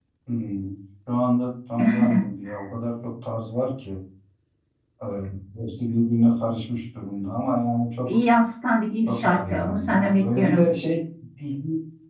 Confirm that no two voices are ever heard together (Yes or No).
No